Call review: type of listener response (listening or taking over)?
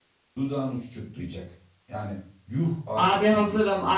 taking over